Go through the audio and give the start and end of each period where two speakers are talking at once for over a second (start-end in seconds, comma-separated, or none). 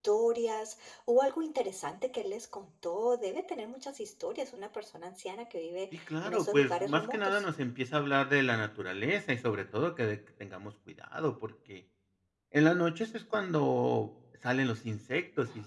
5.9-7.4